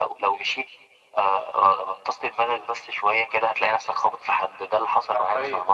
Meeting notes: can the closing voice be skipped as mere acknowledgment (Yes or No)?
No